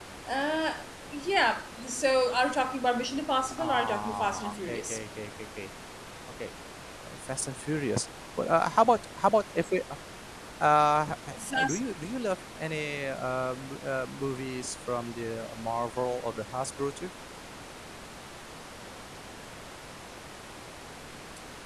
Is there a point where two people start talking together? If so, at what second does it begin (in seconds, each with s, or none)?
3.6 s